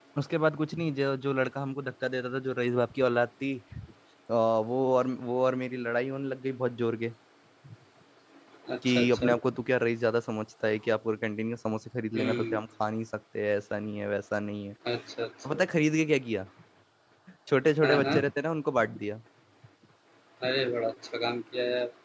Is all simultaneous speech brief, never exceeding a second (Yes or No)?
Yes